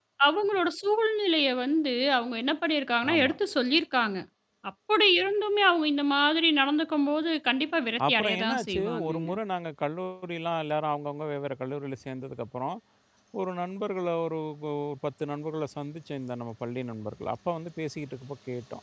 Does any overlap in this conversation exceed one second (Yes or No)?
Yes